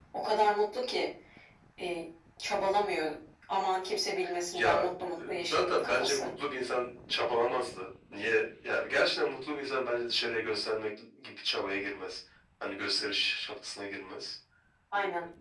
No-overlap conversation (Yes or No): No